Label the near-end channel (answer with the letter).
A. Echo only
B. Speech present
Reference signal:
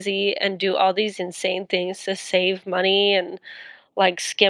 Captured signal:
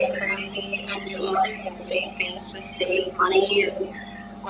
A